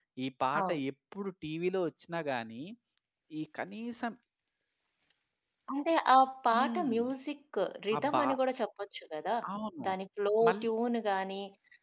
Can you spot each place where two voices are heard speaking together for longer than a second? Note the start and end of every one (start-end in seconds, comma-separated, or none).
none